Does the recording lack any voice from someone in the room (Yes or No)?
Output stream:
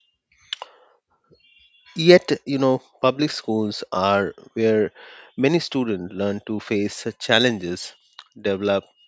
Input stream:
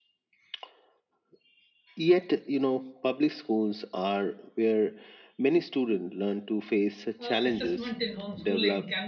No